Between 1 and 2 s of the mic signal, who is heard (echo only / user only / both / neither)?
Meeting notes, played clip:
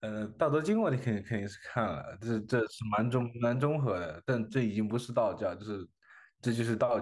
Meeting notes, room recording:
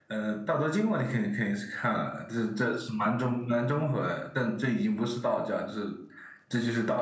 echo only